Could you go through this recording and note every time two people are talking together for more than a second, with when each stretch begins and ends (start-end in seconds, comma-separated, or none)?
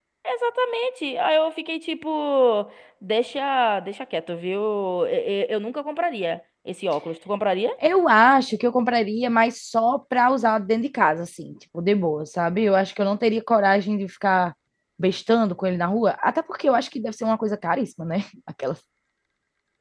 none